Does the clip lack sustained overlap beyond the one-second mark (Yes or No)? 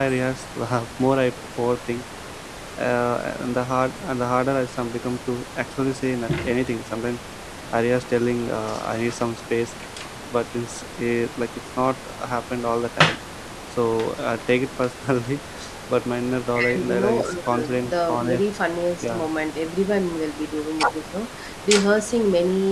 No